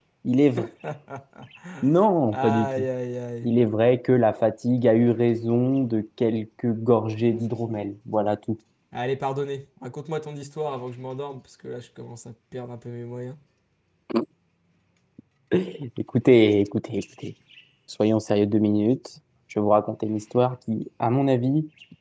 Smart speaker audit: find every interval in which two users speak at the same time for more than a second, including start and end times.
none

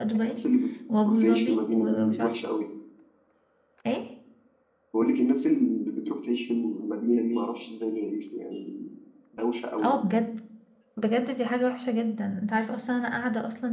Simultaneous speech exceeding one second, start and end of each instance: 1.1-2.4

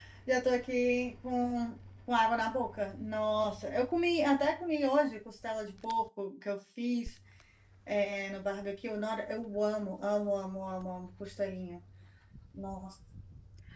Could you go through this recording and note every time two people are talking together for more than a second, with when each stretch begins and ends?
none

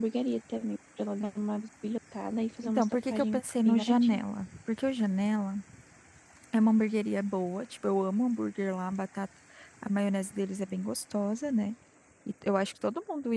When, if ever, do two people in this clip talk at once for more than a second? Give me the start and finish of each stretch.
2.6-4.2

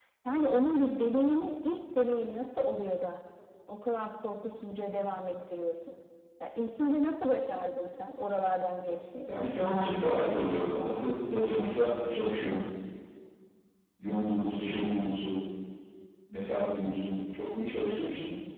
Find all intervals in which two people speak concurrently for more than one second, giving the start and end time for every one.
none

